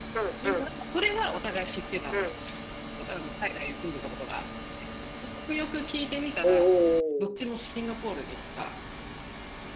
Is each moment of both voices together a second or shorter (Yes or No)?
Yes